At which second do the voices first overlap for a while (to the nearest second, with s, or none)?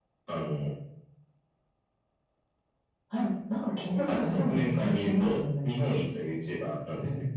4 s